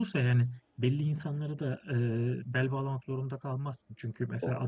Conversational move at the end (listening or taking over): listening